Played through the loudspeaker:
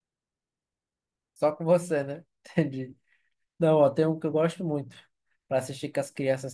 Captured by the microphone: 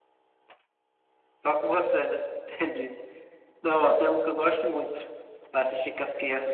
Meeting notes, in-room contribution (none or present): none